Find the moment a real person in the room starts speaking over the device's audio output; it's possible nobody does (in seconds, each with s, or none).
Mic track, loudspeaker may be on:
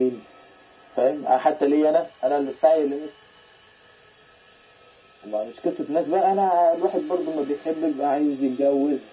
none